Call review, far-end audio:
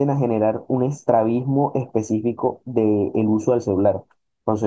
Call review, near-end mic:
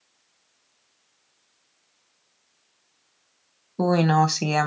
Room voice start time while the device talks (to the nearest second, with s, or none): 4 s